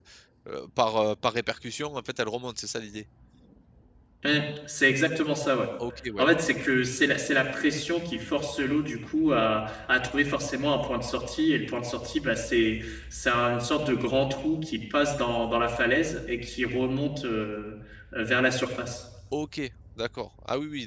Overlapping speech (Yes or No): No